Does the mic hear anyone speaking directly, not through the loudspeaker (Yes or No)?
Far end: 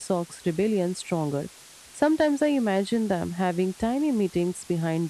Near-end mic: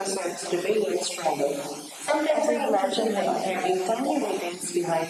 Yes